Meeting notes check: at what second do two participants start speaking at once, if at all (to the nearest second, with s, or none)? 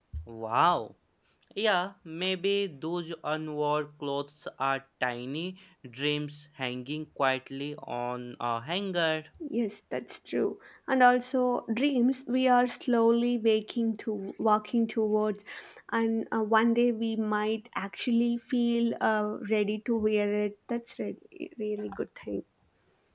none